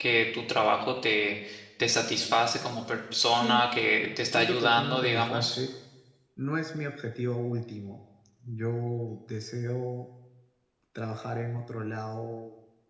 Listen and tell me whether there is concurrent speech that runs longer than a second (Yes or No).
Yes